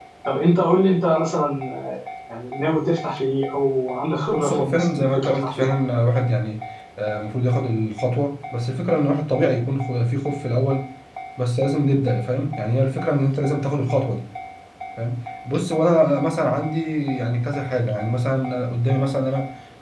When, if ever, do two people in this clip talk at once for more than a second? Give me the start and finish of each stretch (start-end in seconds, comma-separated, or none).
4.4-5.7